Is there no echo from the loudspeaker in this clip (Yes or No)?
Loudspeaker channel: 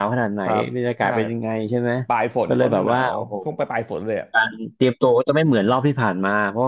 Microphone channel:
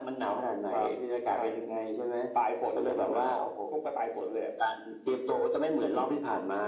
No